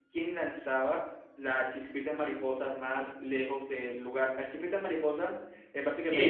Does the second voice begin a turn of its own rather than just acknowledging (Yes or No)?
Yes